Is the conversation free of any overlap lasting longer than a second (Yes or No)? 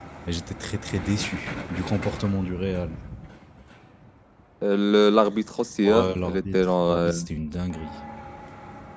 No